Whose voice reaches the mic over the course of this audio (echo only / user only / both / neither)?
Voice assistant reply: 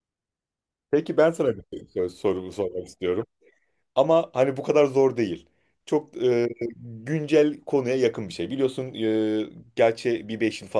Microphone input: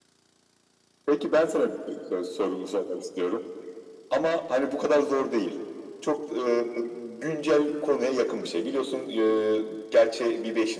echo only